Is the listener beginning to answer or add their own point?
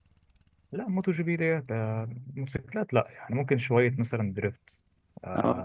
No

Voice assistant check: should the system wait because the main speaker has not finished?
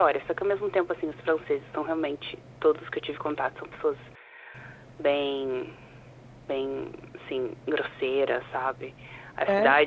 Yes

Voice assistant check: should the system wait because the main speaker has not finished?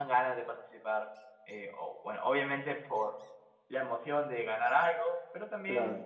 Yes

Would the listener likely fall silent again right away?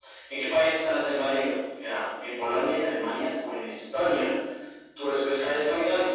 No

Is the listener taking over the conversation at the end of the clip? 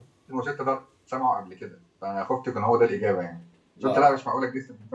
No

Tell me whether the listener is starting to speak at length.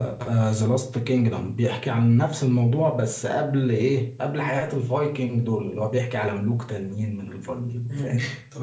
Yes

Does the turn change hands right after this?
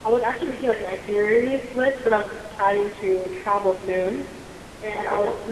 No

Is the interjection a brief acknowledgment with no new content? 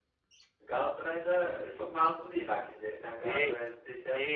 No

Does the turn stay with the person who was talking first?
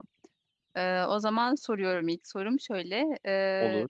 Yes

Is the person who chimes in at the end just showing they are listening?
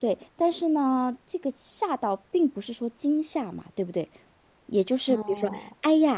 Yes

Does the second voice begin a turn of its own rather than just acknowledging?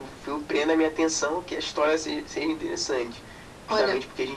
No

